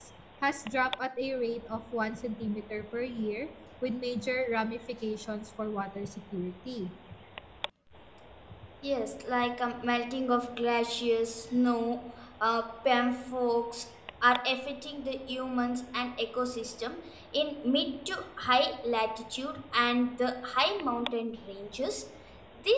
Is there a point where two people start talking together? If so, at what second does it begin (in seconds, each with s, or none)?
none